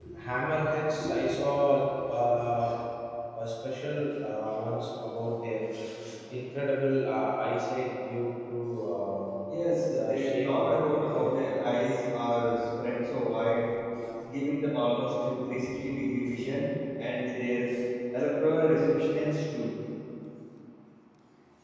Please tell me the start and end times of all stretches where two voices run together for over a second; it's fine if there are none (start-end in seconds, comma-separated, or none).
9.9-11.3